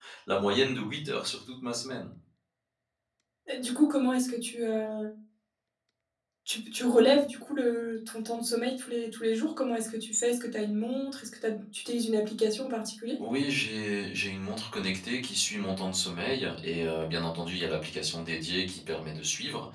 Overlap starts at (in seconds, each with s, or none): none